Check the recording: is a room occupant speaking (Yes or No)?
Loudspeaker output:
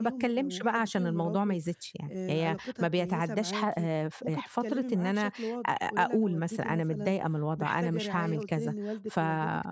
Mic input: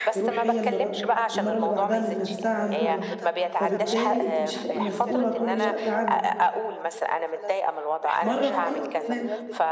Yes